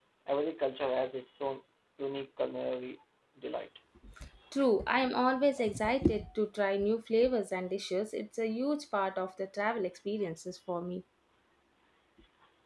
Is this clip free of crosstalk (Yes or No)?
Yes